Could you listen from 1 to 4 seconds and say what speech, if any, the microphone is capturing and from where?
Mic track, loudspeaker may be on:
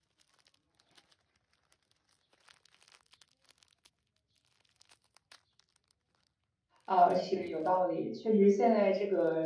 neither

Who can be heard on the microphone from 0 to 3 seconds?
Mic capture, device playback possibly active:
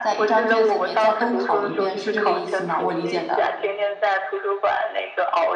both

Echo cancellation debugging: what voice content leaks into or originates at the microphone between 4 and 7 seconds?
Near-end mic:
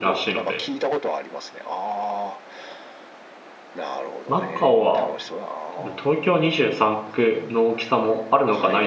both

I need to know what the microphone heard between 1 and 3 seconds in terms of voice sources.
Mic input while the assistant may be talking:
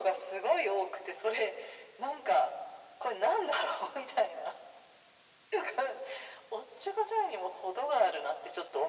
echo only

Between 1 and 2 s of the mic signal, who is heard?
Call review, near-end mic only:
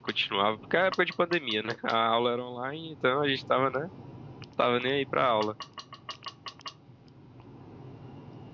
user only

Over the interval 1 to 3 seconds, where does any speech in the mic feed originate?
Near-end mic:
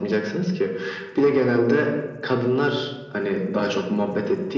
echo only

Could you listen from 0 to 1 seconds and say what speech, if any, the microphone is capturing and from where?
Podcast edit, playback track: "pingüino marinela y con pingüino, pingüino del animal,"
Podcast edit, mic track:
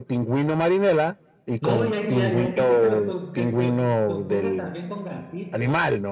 echo only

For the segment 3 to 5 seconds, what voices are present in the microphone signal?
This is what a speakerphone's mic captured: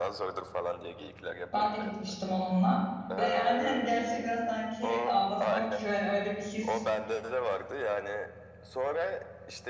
both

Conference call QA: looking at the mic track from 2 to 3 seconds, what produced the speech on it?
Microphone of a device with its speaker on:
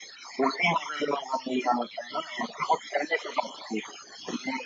echo only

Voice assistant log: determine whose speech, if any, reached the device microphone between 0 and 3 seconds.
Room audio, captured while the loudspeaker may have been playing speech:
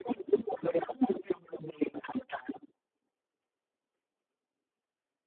echo only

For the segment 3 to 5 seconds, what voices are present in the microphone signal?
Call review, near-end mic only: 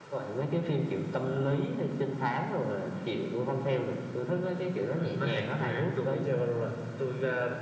echo only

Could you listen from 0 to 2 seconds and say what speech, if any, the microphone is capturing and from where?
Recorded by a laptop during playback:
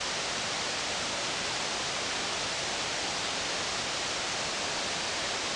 neither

